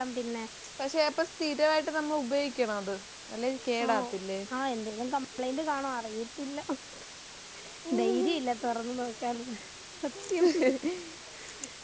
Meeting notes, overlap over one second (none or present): none